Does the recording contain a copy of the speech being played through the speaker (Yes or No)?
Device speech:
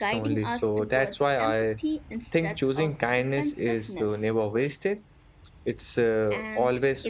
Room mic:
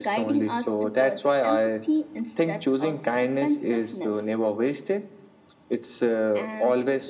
Yes